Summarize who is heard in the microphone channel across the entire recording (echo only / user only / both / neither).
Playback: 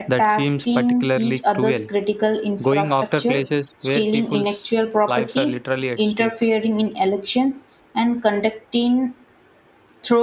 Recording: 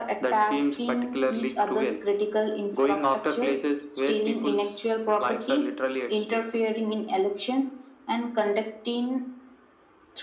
echo only